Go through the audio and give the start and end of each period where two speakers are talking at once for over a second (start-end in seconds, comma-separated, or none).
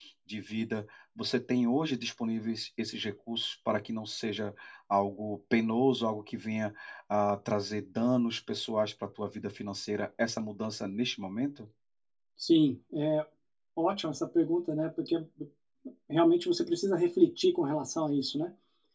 none